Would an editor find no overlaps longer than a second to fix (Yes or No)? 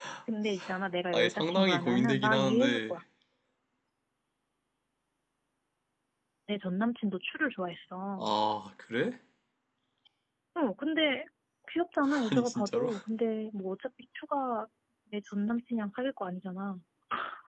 No